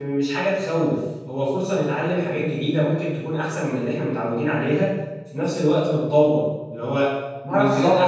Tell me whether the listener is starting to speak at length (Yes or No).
Yes